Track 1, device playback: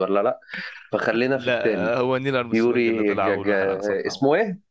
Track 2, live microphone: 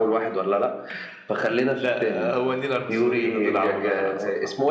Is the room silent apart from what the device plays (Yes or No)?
Yes